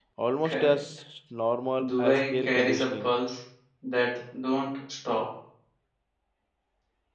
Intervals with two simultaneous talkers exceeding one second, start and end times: 1.8-3.1

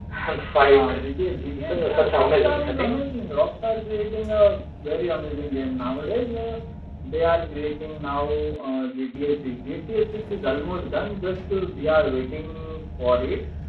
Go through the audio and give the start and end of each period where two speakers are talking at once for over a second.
1.6-3.0

